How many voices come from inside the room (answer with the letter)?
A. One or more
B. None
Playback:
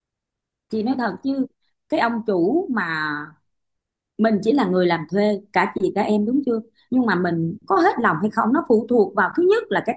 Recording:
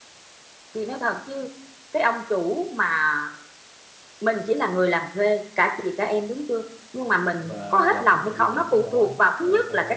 A